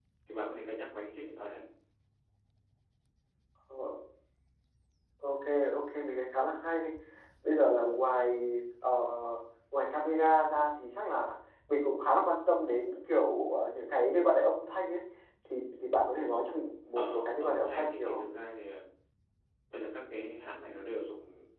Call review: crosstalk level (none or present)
present